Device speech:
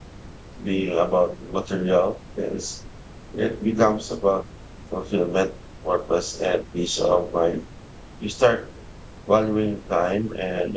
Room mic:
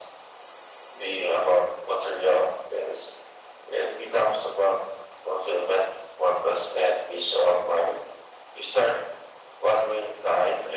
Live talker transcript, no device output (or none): none